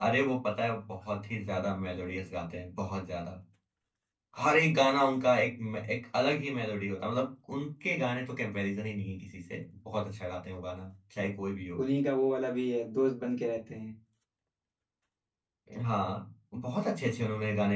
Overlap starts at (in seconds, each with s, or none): none